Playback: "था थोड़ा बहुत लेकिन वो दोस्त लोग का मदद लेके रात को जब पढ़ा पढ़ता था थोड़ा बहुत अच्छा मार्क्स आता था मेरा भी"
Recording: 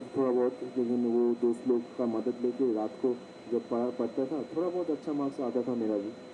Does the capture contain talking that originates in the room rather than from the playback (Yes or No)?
No